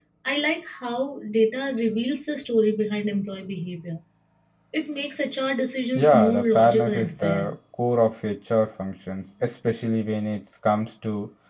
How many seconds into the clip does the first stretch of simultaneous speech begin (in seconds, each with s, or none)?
6.0 s